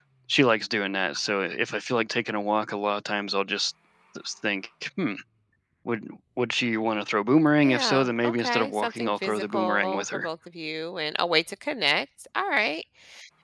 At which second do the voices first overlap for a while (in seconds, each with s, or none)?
7.6 s